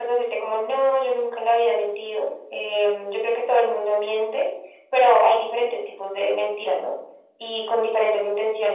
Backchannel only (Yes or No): Yes